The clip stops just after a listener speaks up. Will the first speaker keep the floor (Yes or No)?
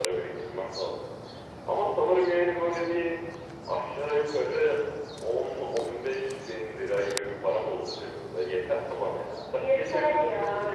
No